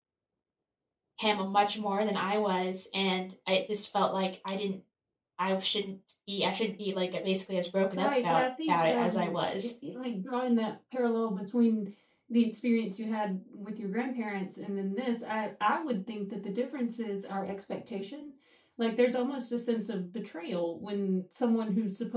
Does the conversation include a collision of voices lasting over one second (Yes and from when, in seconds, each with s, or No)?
Yes, from 8.0 s